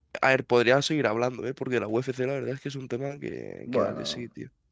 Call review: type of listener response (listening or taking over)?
taking over